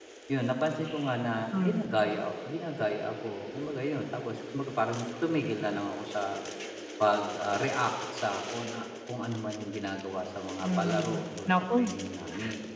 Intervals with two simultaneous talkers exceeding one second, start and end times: 10.6-11.9

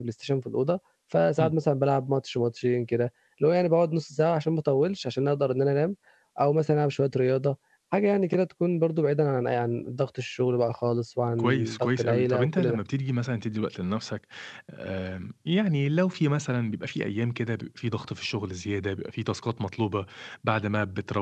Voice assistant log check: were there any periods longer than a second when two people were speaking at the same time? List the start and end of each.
11.4-12.8

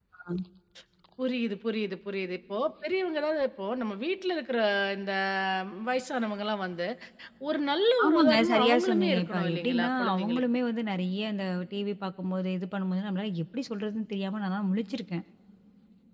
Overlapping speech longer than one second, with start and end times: 8.0-10.4

